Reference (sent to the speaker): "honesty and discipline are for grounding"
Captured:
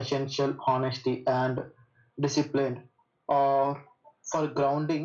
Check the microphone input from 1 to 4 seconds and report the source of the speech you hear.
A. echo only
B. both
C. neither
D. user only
A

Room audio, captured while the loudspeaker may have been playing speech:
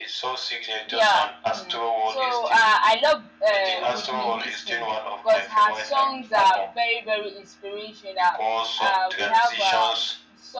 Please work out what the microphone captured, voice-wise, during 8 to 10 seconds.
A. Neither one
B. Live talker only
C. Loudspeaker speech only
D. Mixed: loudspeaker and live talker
D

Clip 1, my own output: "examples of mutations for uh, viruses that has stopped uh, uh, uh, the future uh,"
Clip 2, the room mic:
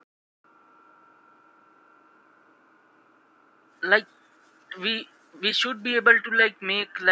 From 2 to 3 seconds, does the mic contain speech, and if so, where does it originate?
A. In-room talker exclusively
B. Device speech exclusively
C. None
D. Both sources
C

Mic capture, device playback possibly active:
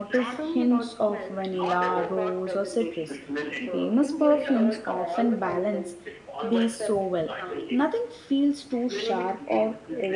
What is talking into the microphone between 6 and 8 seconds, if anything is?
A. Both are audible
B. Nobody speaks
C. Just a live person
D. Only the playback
A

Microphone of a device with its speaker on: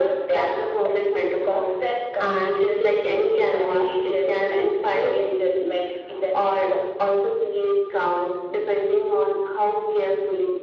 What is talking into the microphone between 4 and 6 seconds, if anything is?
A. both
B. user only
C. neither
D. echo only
D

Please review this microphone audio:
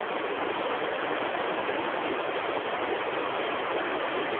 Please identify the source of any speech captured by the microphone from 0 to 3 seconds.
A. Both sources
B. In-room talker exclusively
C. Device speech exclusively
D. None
D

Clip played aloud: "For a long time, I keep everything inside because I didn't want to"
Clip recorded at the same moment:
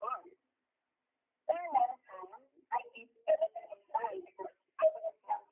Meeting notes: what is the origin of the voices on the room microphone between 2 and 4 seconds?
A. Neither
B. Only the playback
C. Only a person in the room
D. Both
B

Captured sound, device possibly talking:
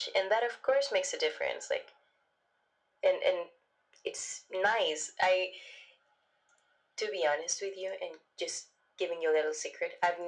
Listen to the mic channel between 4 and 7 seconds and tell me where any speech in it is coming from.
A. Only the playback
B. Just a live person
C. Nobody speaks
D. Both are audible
A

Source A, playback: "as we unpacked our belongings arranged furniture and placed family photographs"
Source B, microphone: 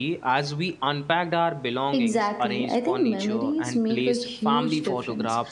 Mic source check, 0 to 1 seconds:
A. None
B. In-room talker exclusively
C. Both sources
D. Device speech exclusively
D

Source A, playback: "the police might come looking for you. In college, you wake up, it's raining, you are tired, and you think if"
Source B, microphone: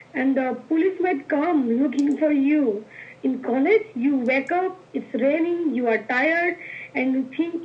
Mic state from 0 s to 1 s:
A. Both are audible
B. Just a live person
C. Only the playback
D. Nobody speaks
C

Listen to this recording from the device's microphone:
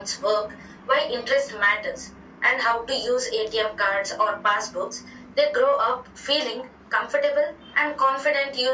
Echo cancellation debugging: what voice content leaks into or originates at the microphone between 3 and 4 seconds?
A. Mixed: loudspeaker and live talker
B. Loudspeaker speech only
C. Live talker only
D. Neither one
B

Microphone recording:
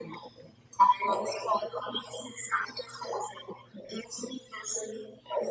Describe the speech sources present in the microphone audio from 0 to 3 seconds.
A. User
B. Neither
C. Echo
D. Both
C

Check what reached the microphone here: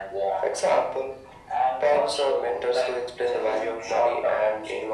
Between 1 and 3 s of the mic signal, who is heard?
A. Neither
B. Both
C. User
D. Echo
D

